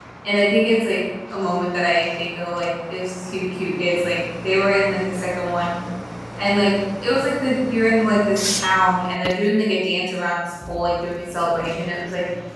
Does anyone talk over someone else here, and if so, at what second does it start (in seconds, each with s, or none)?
none